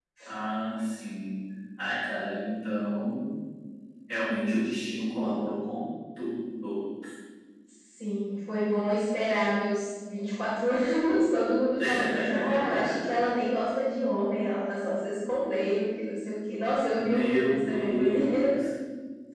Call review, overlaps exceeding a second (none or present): present